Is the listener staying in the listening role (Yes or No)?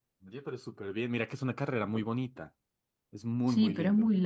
No